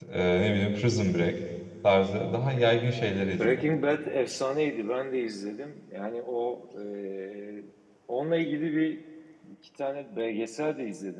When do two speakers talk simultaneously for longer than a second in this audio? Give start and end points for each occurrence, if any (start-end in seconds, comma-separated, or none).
none